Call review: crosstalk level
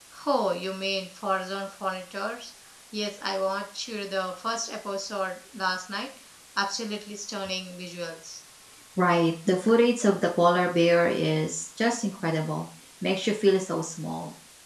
none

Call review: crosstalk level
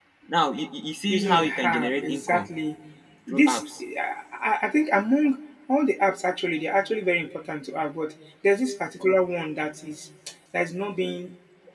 present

